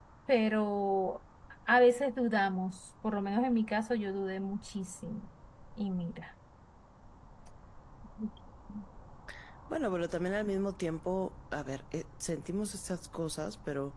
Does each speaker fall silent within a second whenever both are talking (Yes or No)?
Yes